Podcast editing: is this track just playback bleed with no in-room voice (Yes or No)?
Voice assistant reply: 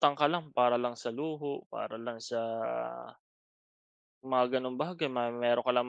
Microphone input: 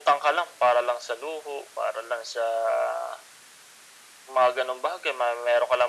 Yes